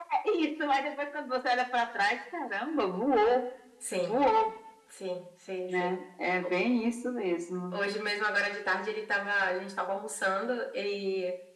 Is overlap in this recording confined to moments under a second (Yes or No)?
Yes